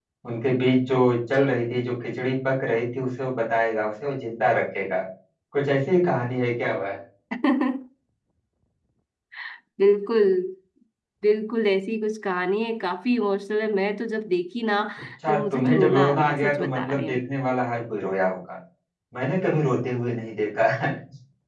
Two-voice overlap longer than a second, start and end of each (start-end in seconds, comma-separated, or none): 15.3-17.2